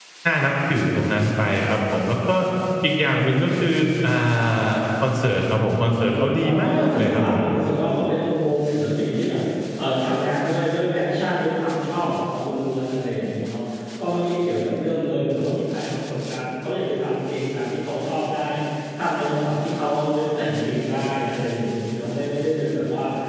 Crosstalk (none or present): present